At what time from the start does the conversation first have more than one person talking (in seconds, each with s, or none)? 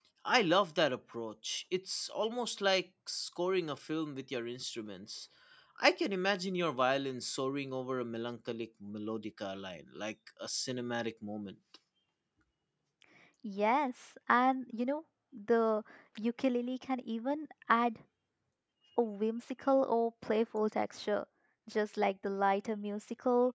none